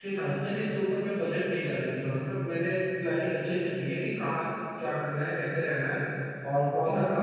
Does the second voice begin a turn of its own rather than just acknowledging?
No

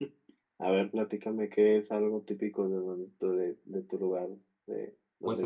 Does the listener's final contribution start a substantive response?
Yes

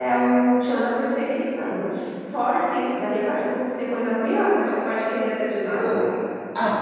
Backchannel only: No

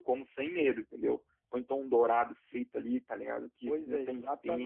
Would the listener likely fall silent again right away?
No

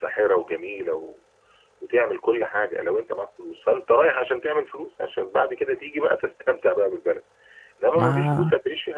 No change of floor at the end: Yes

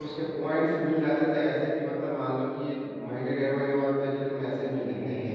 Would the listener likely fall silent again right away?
No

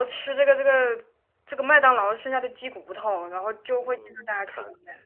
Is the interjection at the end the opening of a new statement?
Yes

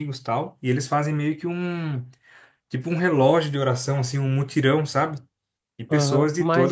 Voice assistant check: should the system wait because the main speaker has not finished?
No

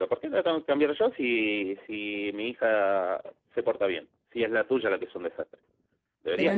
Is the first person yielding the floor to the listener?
Yes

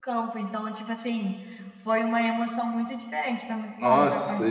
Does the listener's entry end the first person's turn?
Yes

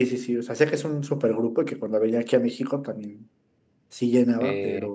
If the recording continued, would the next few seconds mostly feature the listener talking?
Yes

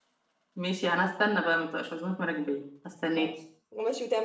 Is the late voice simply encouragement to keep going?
No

